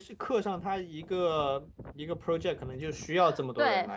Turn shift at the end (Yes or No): Yes